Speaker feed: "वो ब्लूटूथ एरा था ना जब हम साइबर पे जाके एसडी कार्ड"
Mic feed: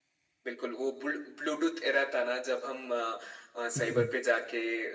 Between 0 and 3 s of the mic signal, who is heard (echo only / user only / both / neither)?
echo only